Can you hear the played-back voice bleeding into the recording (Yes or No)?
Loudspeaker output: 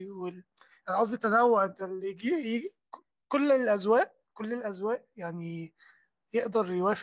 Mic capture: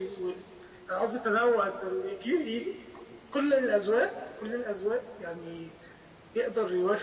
Yes